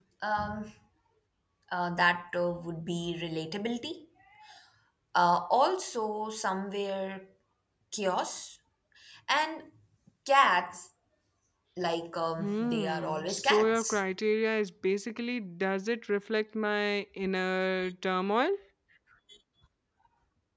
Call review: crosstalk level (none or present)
present